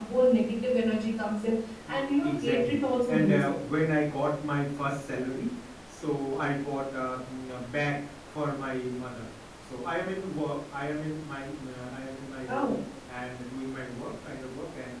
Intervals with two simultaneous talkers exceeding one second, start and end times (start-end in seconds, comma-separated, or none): 2.2-3.6